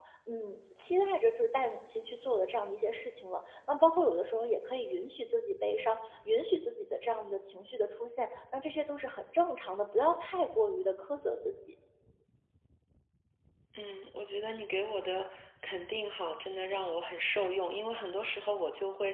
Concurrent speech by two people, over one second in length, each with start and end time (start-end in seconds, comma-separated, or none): none